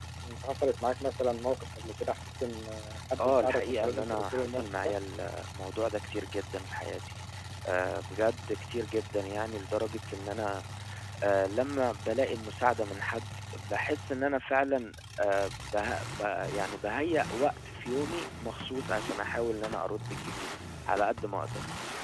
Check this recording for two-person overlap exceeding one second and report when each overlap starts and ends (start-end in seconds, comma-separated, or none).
3.2-4.9